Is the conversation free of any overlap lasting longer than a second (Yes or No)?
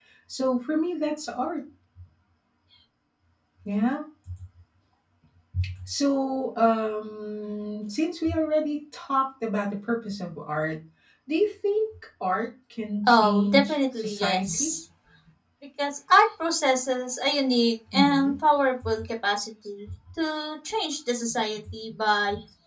No